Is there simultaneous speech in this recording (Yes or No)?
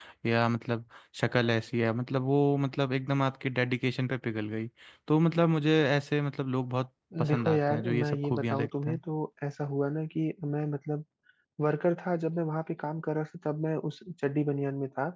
Yes